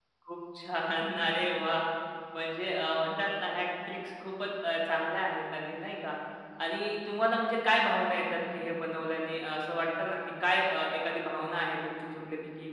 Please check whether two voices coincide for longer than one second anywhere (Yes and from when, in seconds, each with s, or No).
No